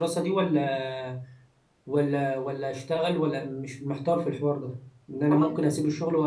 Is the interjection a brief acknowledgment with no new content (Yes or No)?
Yes